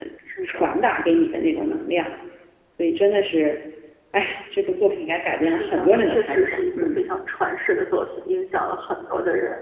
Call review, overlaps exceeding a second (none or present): present